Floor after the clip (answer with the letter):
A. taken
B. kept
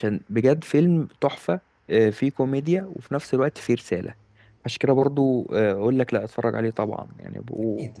A